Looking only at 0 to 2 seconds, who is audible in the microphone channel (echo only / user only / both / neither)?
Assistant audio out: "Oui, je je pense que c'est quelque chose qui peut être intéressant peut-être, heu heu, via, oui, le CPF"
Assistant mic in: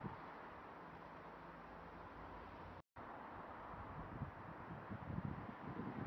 neither